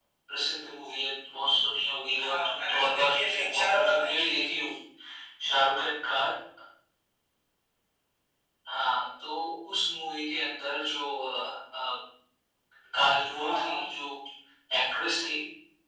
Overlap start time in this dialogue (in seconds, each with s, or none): 2.2 s